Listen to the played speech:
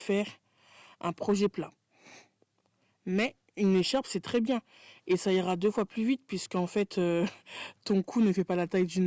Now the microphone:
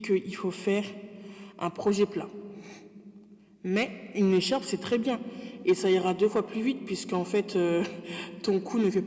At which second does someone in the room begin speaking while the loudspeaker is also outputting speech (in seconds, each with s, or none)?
none